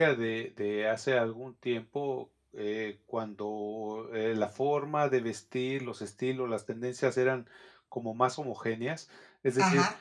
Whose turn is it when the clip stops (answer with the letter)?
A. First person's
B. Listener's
A